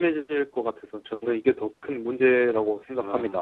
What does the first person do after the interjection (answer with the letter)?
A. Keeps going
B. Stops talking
B